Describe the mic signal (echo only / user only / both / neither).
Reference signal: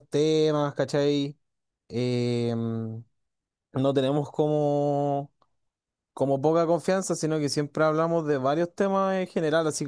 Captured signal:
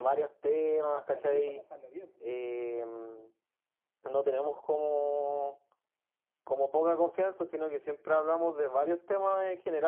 both